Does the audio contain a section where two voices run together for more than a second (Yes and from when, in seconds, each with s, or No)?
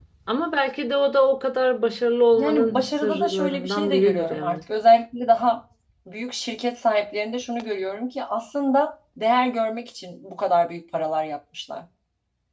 Yes, from 2.4 s